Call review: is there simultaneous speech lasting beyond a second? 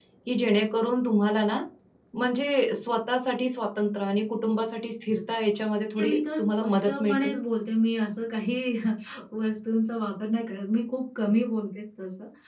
Yes, from 6.0 s

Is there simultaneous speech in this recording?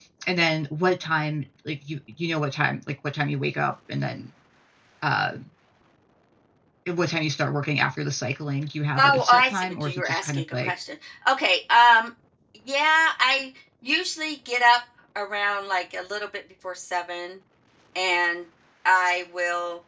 Yes, from 9.0 s

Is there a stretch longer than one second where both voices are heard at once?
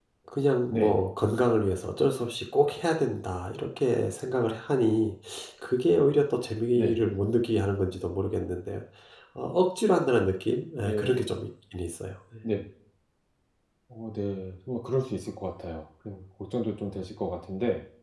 No

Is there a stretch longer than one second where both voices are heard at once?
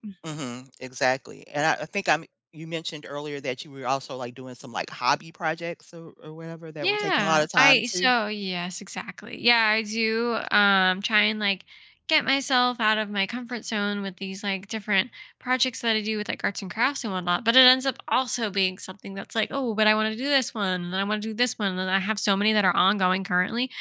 Yes, from 6.8 s

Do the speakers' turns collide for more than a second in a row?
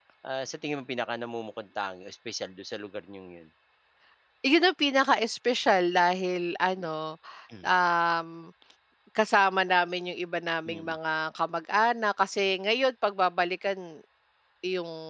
No

